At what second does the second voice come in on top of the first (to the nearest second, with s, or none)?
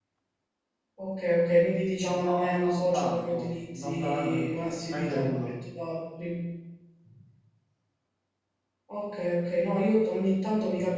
2 s